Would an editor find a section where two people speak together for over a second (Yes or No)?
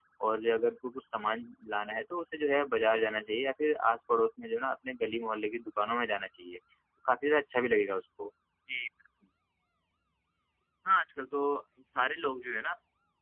No